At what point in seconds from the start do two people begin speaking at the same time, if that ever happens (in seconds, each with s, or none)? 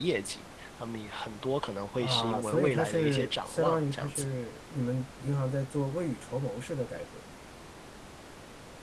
2.0 s